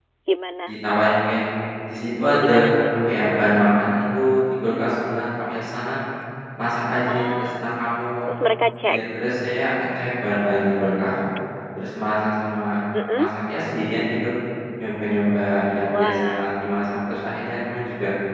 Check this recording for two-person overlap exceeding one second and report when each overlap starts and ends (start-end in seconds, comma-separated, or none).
none